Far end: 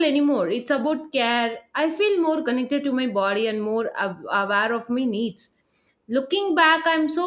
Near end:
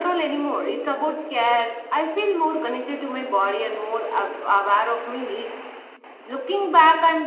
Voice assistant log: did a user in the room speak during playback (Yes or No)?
No